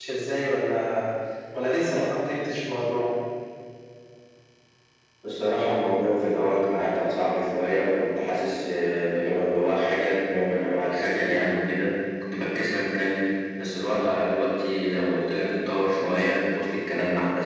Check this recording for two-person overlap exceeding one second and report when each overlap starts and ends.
none

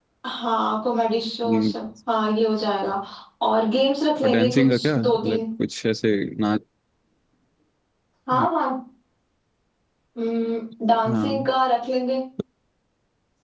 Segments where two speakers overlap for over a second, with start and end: 4.2-5.4

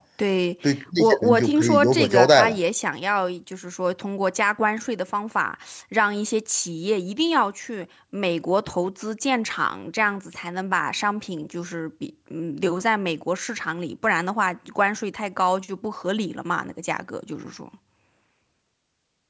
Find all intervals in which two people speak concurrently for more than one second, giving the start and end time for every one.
1.0-2.6

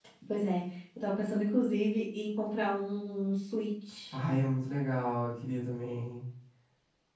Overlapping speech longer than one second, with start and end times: none

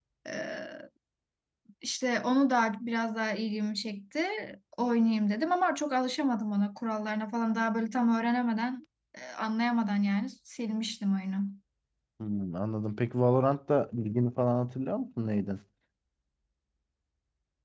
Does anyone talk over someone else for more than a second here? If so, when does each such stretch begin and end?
none

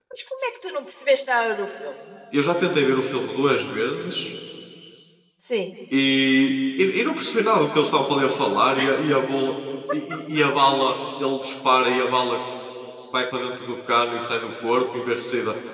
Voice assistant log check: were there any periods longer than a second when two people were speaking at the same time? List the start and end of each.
none

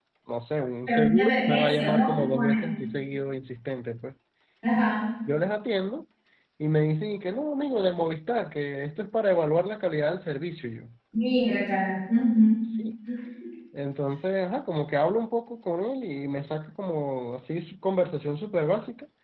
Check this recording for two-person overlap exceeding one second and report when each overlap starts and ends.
0.9-2.7

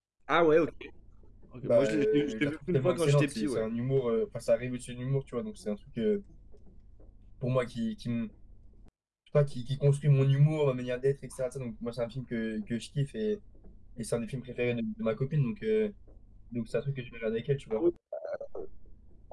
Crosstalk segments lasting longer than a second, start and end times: 1.6-3.6

